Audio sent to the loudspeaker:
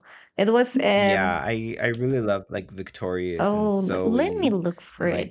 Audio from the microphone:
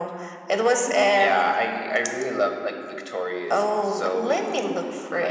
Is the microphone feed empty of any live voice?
Yes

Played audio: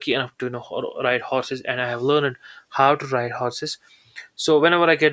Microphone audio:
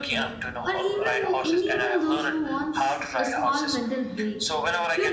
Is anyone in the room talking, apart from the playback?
Yes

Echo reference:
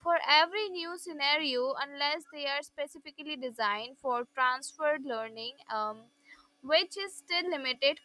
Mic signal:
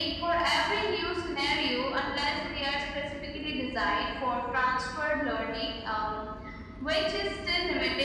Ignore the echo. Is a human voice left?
No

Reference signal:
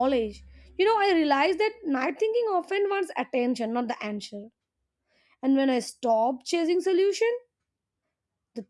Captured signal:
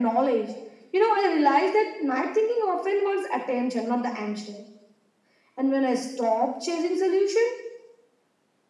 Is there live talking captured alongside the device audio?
No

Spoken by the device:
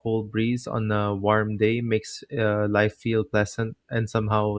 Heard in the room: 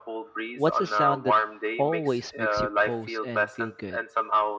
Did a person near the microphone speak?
Yes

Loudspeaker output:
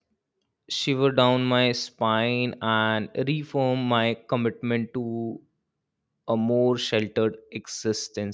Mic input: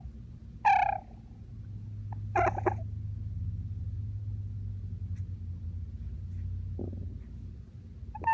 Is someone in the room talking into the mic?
No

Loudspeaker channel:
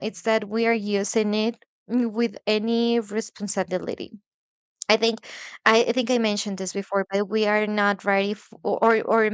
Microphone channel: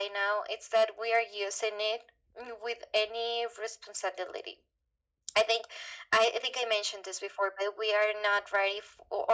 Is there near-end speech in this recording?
No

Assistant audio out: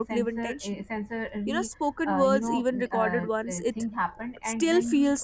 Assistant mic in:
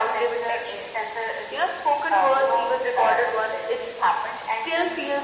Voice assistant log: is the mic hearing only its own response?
Yes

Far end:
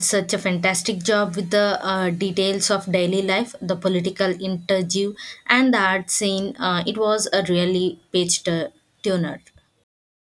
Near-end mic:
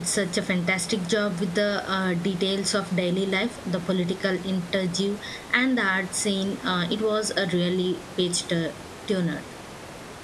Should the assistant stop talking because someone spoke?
No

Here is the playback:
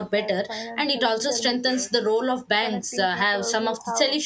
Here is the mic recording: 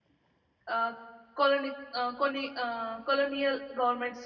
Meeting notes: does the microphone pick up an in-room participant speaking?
Yes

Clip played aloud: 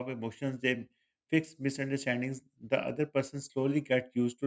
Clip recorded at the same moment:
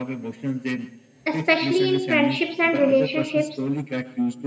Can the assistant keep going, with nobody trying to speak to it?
No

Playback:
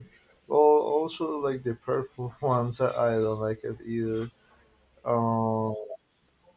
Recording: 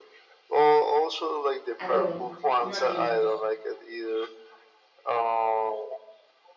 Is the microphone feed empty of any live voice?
No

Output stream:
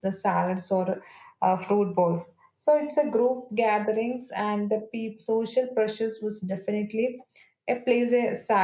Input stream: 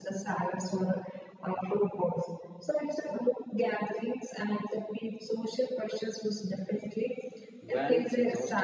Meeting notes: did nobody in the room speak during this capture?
No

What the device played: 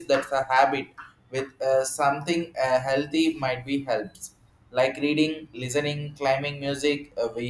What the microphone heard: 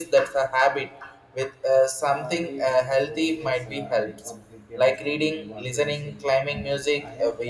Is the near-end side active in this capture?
Yes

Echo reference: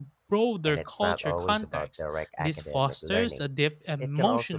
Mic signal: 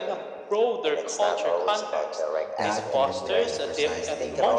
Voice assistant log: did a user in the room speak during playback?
Yes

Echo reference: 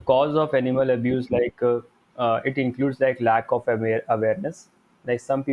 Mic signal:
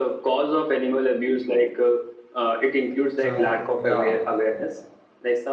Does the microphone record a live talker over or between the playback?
Yes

